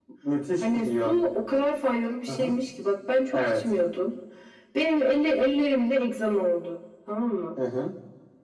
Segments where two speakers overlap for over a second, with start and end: none

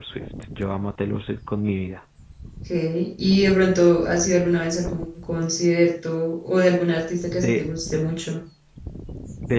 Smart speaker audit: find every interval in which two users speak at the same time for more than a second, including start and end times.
none

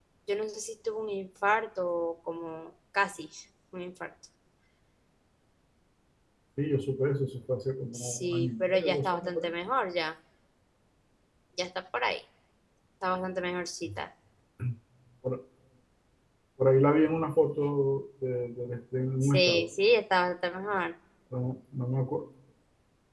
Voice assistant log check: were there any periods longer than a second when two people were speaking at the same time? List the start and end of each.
8.0-9.5

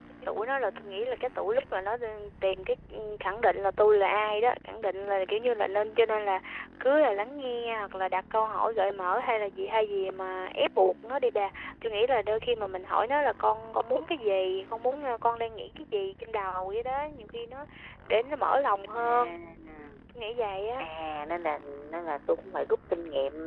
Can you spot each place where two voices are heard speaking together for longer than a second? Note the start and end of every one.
none

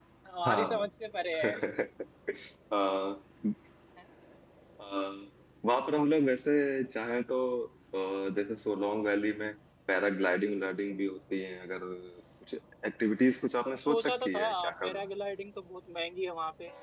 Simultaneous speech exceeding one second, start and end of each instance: 13.7-15.1

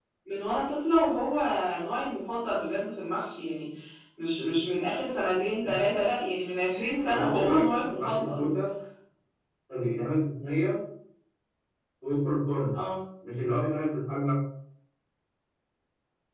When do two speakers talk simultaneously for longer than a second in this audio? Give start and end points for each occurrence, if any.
7.0-8.5

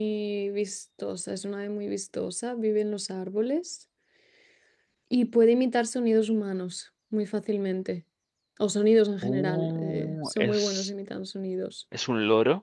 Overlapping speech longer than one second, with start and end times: 9.2-10.9

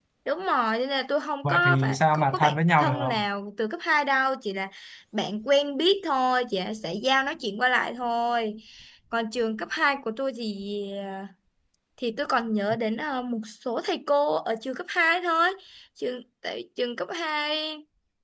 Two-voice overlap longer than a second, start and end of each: 1.4-3.2

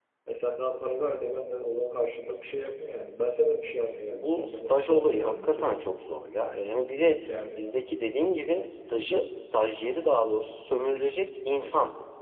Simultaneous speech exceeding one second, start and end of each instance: 4.1-5.7

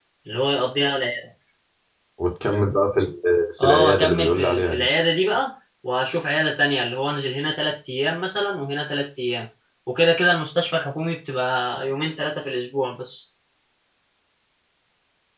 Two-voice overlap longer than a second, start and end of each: 3.6-4.9

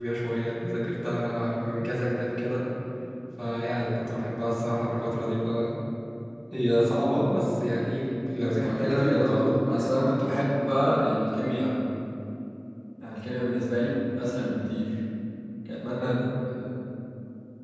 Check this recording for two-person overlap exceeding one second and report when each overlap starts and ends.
8.4-9.9

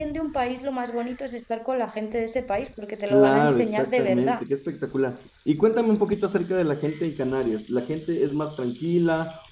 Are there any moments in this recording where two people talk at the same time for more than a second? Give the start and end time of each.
3.1-4.4

